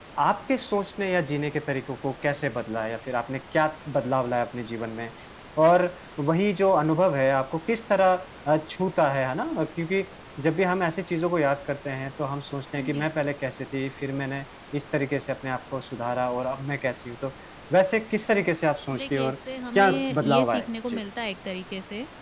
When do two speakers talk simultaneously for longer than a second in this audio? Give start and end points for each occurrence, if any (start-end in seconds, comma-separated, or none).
19.8-21.0